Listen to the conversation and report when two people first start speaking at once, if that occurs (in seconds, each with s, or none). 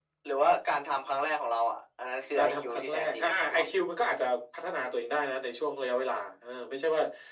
2.4 s